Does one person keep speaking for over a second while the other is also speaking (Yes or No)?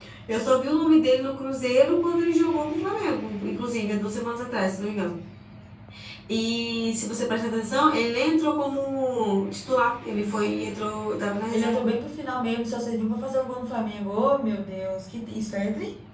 No